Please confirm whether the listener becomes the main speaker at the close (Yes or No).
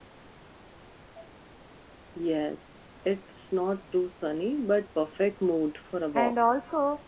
Yes